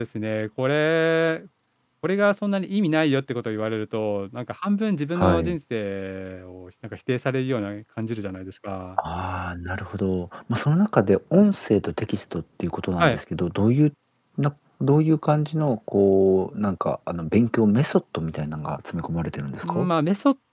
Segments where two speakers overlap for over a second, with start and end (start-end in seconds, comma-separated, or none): none